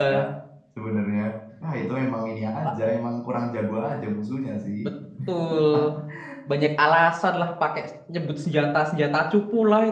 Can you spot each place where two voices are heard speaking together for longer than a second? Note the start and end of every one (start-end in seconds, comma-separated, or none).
none